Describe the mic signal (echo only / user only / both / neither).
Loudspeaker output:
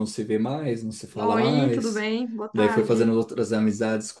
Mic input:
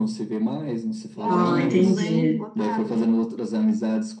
both